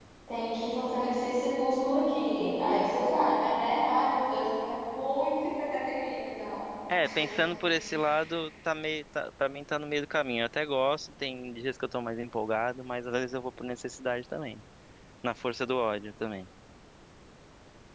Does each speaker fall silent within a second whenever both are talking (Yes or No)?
Yes